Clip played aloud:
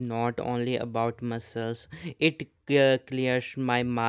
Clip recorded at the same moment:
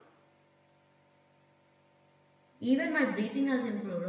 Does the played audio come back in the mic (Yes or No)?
No